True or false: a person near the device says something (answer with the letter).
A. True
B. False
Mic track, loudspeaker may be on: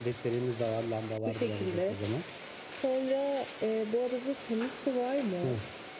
B